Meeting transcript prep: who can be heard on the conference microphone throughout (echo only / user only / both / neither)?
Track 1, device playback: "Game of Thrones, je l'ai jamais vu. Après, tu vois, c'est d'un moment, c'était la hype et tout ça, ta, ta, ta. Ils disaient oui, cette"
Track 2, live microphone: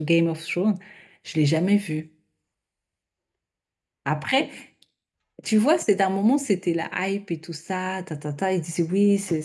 echo only